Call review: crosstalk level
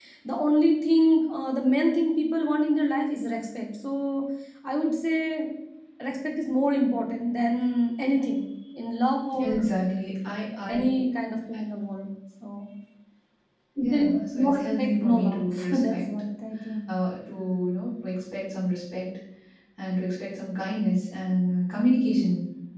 present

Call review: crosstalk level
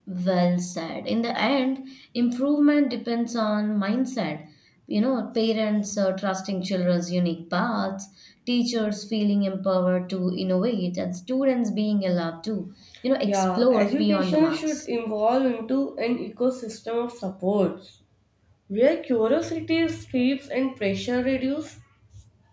present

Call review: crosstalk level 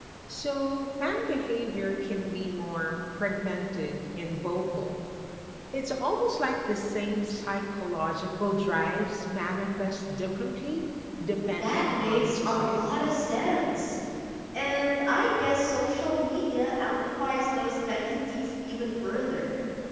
present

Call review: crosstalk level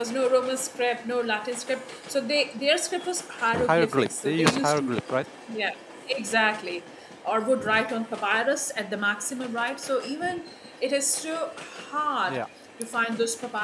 present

